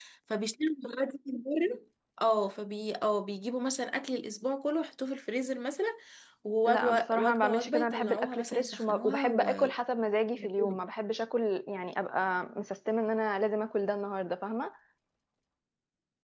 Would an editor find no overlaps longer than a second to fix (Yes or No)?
No